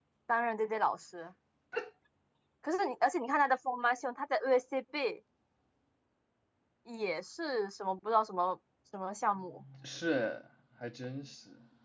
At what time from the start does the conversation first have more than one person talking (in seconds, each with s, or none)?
none